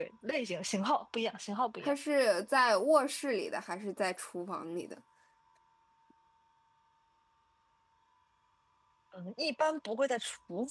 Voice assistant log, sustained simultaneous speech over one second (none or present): none